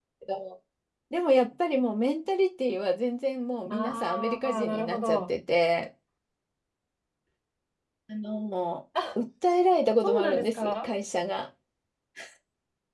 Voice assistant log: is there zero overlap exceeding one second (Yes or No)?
No